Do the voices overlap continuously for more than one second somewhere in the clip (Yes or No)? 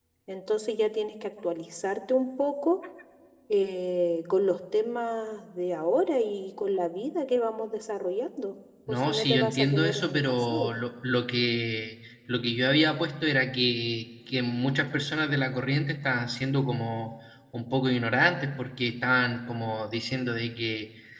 Yes